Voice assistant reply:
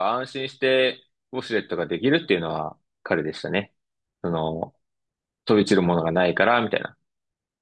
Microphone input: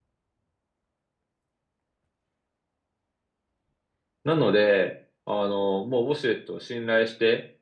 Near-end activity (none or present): present